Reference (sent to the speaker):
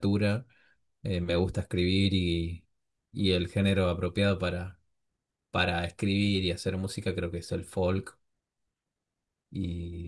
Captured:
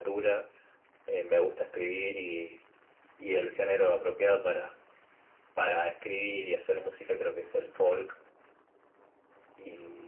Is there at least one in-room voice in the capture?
No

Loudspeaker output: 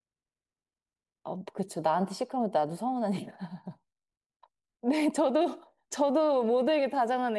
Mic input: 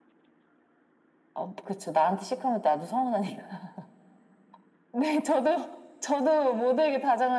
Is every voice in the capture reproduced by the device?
Yes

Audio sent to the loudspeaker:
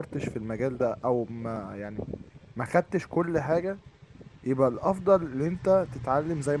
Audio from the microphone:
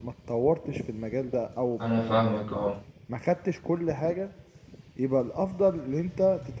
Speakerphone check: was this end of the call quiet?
No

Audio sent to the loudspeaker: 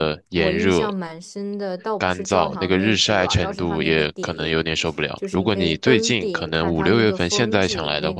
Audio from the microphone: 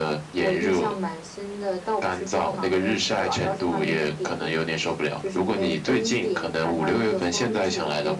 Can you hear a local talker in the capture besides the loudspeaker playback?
No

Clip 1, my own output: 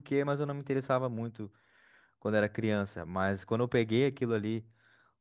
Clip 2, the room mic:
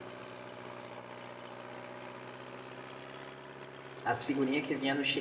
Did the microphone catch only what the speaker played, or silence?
No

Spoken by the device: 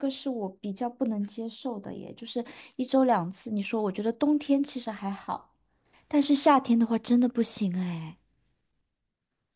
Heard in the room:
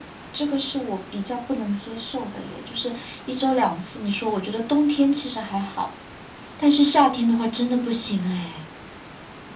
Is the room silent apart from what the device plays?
Yes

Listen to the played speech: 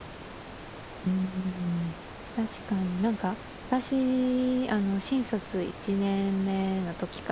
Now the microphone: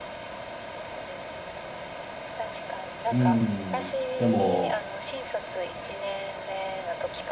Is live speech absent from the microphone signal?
No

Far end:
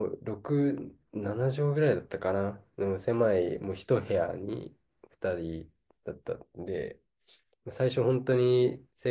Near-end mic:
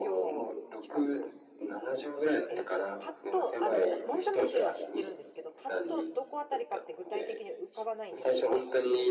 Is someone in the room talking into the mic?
Yes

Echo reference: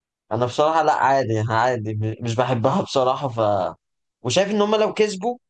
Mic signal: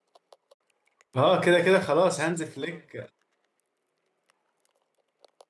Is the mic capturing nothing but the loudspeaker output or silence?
No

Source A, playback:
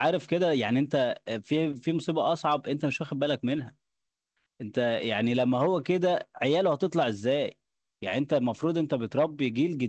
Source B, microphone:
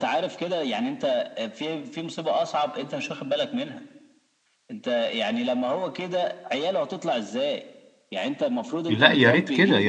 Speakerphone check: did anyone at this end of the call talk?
Yes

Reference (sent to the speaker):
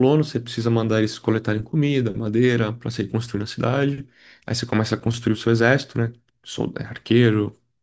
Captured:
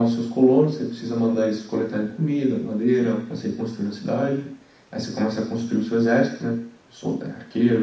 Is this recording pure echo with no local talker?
Yes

